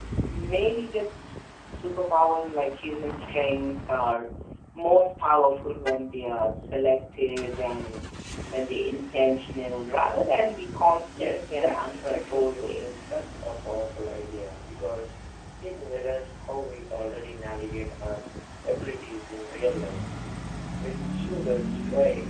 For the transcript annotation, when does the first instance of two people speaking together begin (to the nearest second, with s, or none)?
11 s